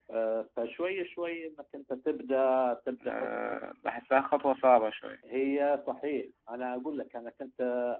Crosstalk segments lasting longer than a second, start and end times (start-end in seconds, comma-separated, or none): none